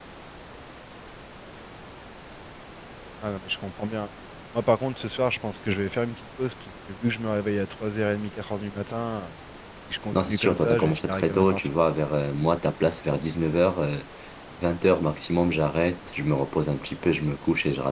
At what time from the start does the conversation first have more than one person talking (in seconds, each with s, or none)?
10.1 s